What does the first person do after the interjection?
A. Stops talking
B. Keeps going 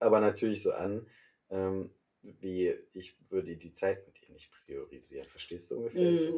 A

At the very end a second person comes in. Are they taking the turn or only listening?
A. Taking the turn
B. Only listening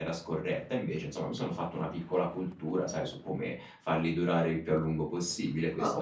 A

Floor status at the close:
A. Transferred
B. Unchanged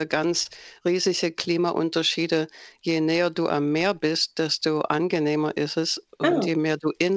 B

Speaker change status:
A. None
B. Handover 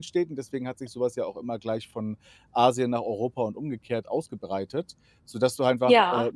A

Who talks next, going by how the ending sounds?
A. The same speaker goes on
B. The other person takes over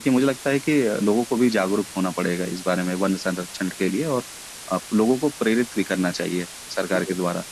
B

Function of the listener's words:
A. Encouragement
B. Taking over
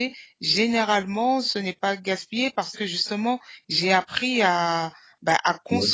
A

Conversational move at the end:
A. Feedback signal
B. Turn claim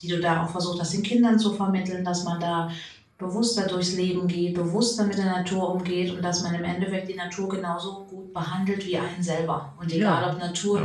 A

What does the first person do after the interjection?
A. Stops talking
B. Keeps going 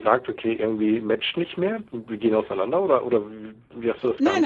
A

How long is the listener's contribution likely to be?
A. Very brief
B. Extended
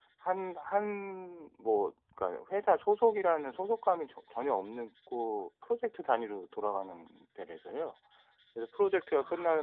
A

